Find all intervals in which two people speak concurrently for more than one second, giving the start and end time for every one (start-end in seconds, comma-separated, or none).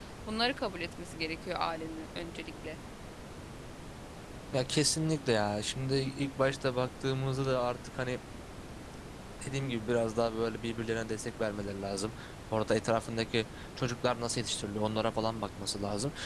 none